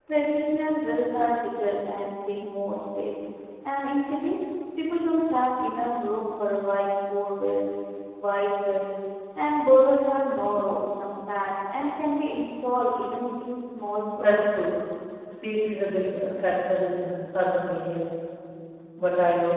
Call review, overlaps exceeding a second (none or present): none